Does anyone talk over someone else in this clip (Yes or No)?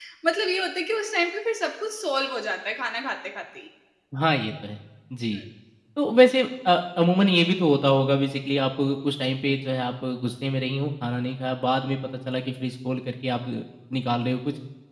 No